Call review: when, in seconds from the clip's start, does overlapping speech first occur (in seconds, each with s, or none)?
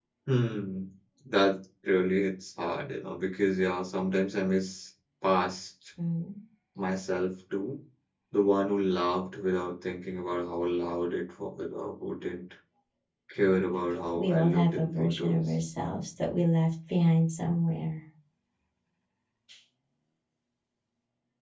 14.2 s